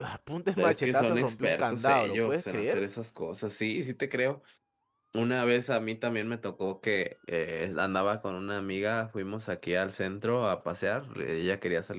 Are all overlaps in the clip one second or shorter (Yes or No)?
No